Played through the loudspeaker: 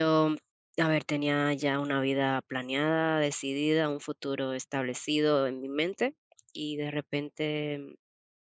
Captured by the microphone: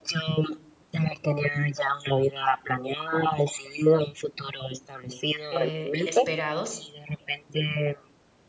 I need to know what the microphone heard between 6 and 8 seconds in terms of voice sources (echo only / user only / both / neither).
both